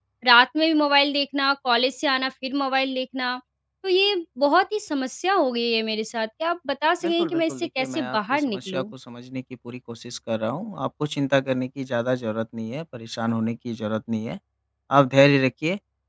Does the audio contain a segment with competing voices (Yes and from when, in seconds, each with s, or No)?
Yes, from 7.0 s